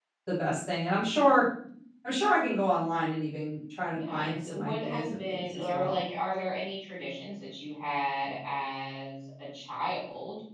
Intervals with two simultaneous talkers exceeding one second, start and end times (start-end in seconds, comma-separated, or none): 3.9-6.0